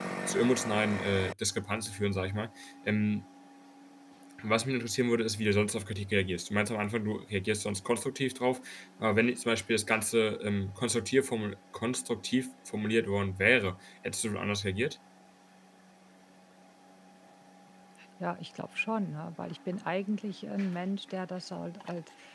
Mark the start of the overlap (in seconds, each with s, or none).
none